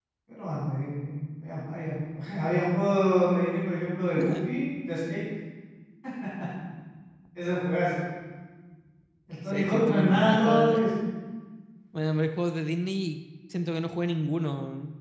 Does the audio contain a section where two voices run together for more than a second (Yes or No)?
Yes